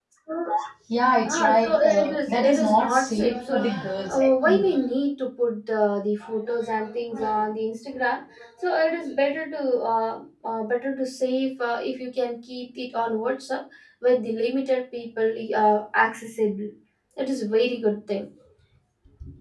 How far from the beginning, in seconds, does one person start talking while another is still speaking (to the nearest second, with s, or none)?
1 s